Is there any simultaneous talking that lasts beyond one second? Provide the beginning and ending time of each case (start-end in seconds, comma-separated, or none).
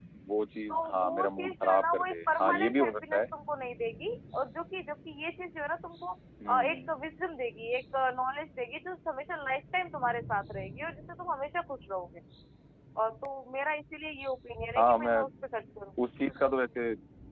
0.7-3.2